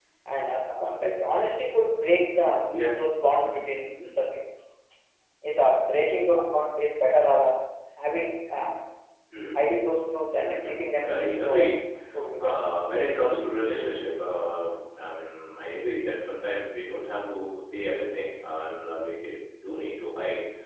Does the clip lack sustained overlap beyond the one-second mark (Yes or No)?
No